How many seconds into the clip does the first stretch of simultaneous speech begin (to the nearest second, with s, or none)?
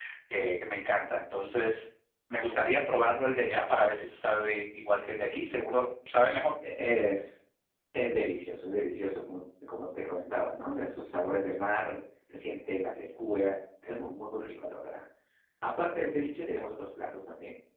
none